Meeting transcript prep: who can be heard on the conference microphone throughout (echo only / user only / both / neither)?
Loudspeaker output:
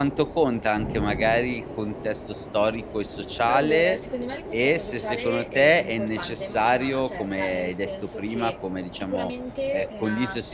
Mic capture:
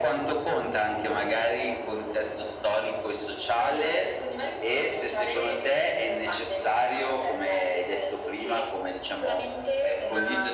echo only